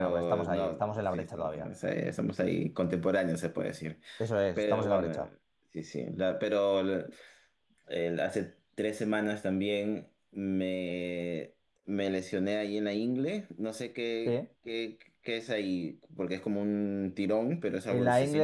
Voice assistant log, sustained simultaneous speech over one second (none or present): present